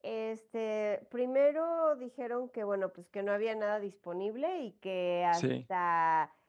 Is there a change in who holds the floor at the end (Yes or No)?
No